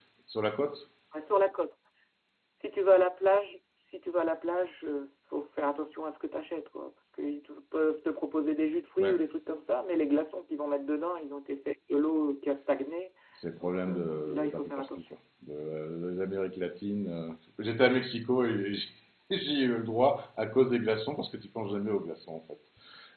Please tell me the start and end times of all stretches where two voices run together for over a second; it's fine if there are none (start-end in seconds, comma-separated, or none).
13.6-14.9